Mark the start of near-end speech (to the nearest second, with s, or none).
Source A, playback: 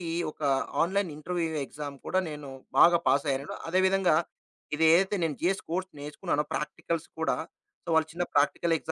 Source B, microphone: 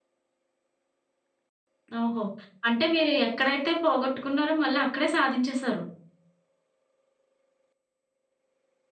2 s